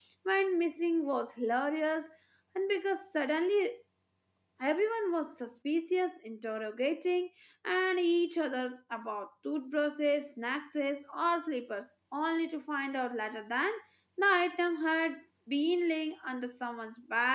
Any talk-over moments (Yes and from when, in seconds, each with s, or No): No